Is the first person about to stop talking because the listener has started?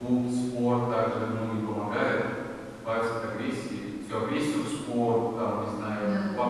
No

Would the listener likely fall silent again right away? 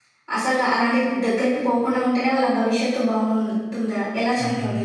No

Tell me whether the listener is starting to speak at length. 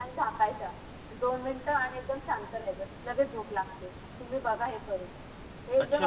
Yes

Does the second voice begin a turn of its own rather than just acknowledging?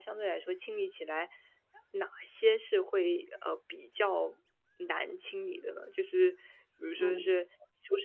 No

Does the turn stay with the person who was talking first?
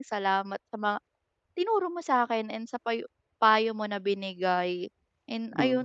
No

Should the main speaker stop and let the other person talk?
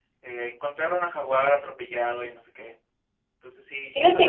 Yes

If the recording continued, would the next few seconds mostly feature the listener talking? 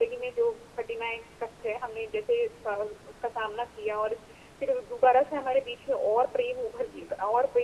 No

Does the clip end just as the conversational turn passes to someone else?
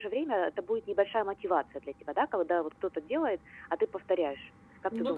Yes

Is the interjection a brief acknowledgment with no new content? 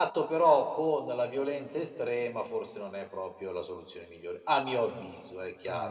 No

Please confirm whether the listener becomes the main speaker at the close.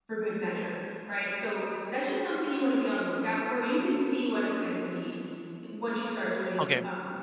No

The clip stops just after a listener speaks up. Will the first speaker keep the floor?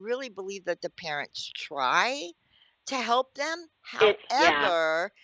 Yes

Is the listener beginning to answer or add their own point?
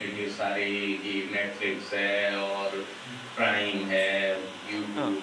No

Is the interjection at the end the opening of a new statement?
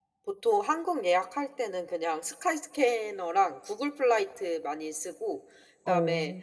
No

